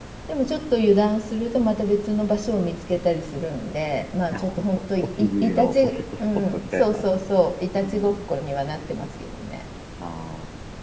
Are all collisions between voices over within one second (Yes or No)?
No